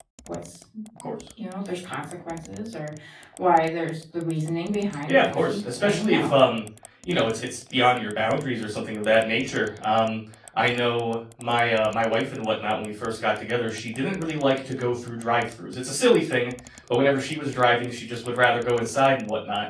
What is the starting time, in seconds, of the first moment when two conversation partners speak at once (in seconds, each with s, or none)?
5.1 s